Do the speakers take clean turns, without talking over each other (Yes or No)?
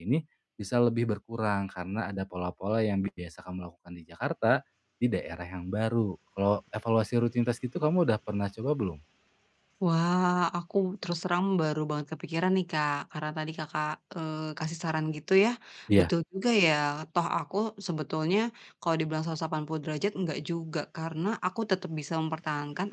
Yes